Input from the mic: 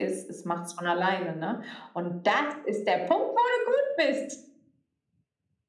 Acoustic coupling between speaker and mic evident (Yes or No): Yes